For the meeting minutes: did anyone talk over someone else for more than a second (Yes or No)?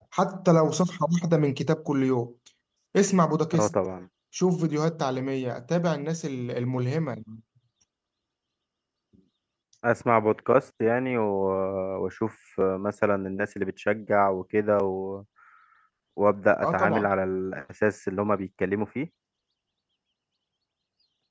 No